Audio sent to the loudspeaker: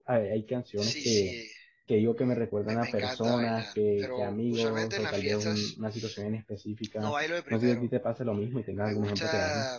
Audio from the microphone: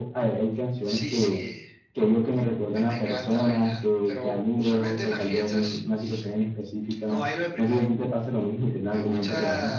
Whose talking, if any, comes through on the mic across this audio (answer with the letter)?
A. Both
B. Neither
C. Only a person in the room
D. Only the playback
D